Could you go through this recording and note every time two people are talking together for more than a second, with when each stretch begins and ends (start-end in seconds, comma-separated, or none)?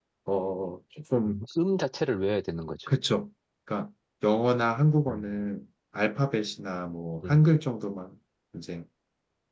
none